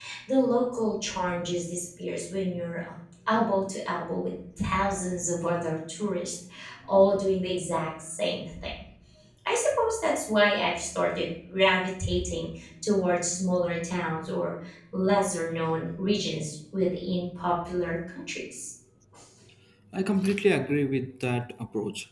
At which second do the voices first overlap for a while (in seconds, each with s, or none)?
none